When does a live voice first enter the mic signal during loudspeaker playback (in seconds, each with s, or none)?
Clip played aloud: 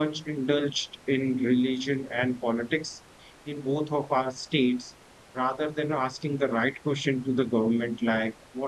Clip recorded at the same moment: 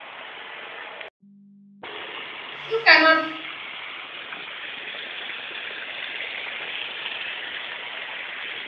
2.7 s